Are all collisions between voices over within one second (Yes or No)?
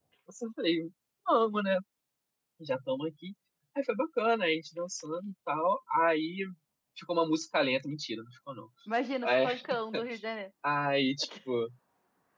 Yes